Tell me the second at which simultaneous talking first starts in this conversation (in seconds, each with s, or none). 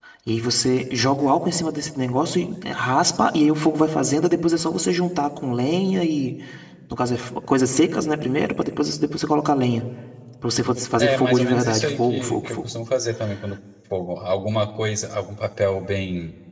11.0 s